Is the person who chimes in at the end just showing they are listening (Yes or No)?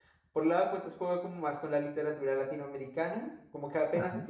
Yes